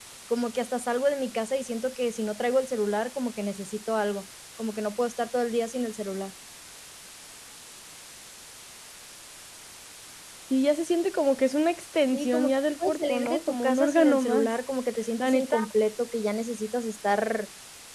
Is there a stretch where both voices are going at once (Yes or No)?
Yes